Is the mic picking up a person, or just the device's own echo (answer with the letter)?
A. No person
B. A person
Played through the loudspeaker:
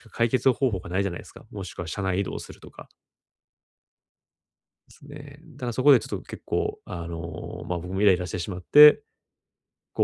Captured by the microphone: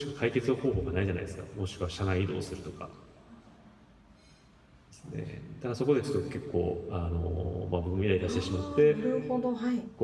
B